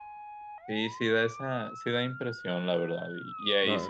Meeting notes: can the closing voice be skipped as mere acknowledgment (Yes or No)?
Yes